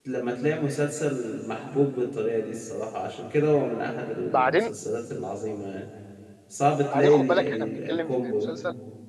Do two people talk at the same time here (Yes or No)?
Yes